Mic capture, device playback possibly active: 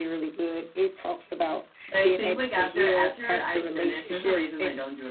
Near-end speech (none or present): present